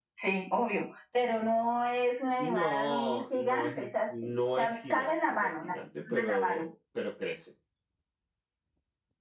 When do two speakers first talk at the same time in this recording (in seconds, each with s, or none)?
2.4 s